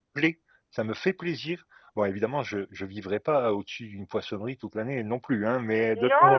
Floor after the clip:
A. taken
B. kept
A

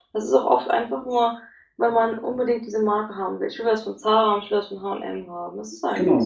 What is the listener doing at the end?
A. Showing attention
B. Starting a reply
B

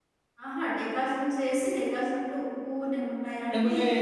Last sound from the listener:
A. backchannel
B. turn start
A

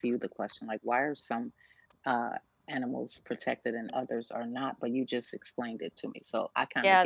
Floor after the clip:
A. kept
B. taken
B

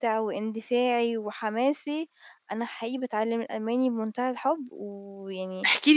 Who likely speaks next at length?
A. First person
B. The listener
B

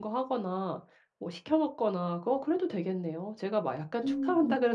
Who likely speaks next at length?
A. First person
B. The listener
A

